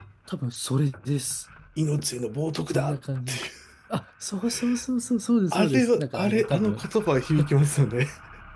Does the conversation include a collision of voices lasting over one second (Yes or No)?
Yes